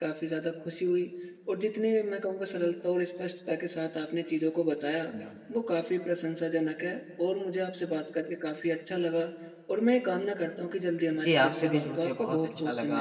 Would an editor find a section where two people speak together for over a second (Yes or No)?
Yes